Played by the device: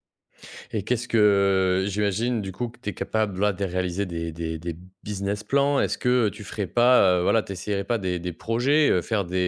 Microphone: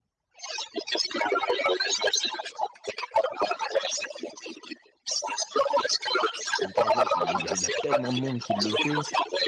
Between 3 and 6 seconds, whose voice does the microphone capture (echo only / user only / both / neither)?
echo only